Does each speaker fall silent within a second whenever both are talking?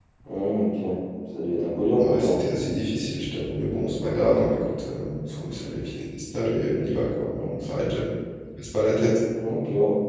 Yes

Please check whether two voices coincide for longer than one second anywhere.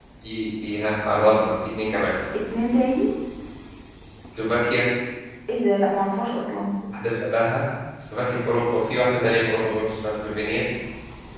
No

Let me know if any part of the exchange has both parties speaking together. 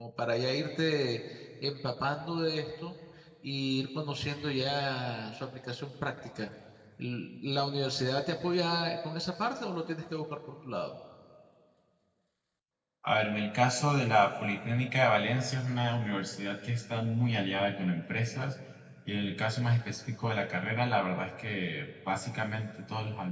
No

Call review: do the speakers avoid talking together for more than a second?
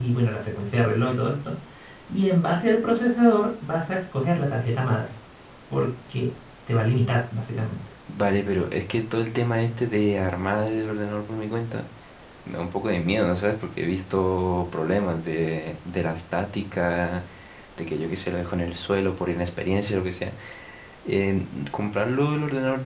Yes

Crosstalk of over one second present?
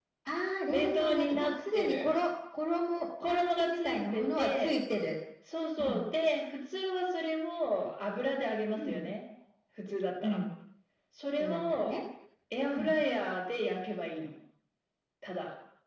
Yes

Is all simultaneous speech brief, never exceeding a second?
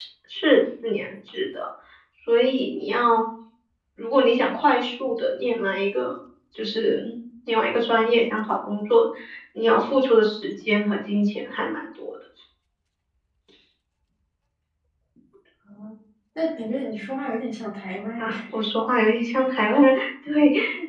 Yes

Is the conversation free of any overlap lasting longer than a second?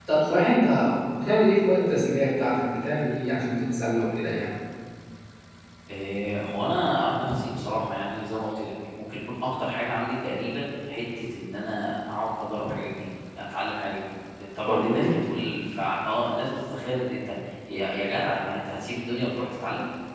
Yes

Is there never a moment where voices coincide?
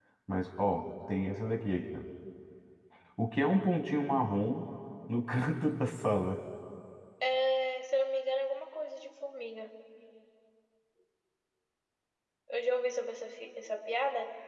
Yes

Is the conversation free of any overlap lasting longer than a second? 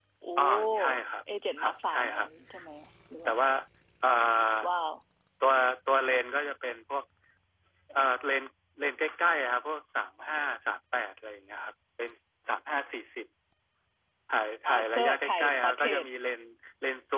No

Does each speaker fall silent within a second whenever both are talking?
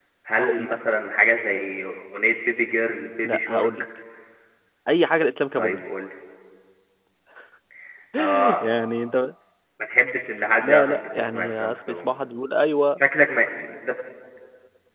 No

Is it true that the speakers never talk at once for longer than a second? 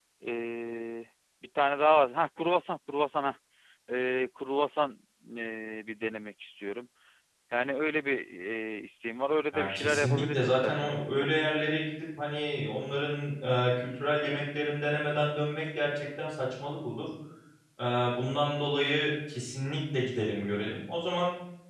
No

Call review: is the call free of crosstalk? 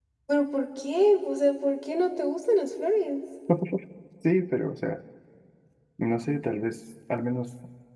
Yes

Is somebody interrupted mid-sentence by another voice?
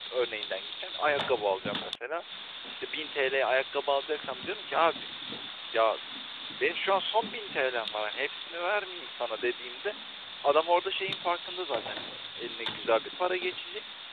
No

